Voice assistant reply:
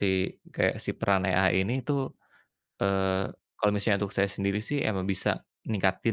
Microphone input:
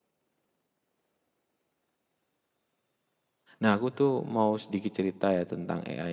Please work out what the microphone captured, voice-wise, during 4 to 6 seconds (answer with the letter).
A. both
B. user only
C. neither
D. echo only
B